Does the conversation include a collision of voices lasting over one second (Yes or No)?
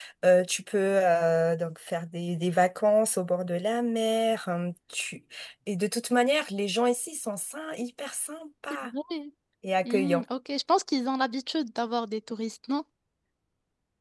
No